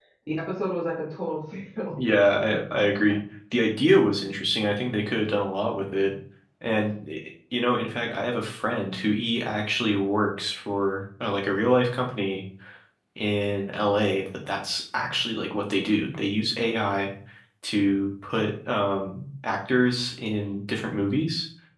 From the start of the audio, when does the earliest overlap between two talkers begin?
none

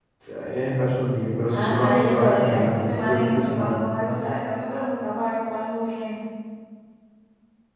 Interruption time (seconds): 1.5 s

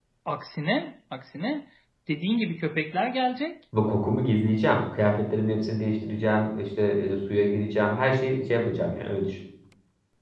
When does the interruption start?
none

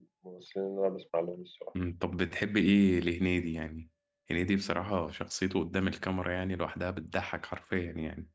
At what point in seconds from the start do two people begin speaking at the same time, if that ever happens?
none

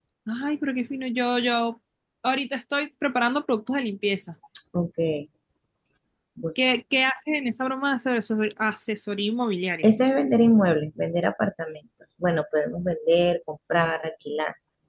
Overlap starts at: none

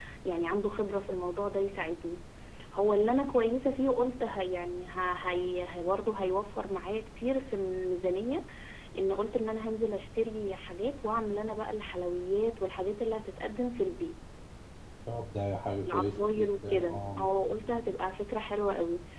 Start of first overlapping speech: 15.9 s

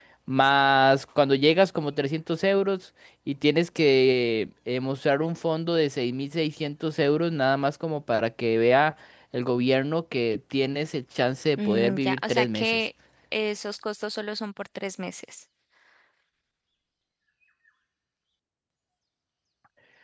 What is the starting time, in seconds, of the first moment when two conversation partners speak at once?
11.6 s

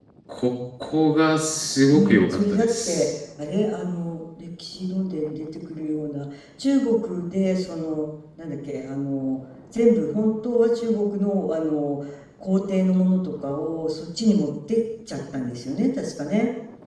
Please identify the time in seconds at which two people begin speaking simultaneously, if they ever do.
1.9 s

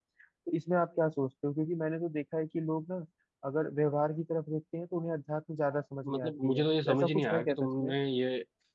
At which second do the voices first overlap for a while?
6.0 s

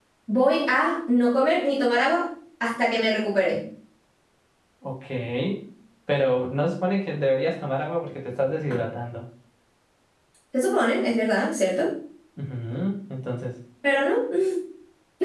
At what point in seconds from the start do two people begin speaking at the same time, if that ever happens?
none

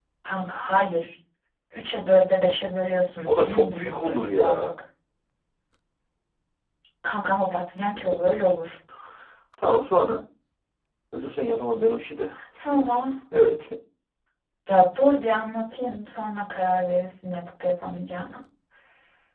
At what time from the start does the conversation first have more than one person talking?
3.3 s

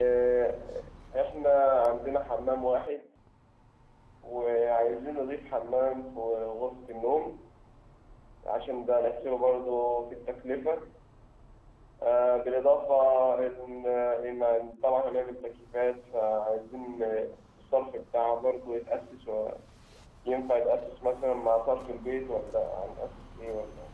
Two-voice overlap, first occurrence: none

